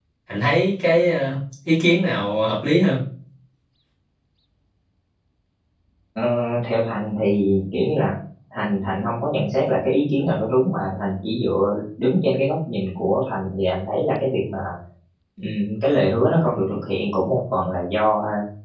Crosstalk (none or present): none